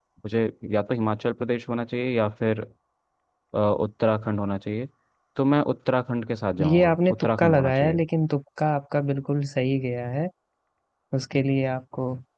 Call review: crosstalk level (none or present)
present